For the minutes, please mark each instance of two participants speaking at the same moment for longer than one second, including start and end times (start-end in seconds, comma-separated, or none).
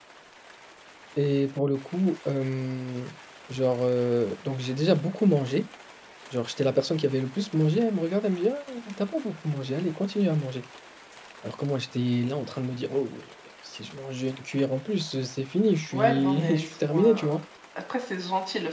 15.9-17.2